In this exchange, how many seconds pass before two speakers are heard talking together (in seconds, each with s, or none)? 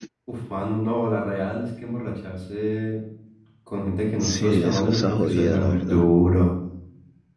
4.2 s